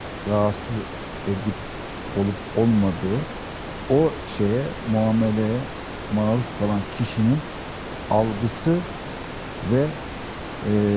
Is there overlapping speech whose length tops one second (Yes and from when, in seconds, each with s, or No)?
No